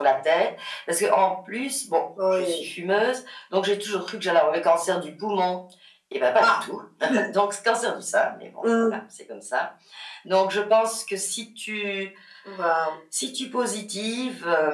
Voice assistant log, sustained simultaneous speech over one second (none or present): none